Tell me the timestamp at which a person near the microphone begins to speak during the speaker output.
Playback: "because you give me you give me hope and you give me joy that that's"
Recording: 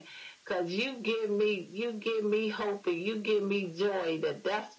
none

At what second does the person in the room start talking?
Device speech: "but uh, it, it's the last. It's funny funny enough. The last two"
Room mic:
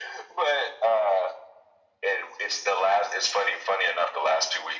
none

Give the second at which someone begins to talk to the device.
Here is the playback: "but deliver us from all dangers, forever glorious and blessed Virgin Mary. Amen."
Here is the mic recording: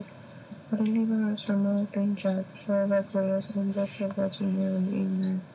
none

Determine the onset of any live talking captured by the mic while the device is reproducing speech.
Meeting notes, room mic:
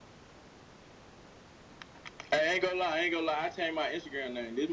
none

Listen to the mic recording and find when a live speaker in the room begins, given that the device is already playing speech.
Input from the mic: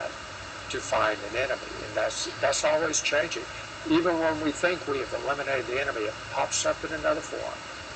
none

